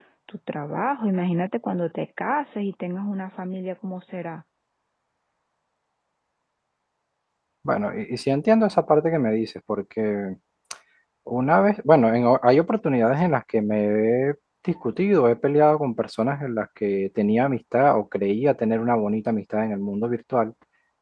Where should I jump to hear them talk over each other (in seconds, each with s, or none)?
none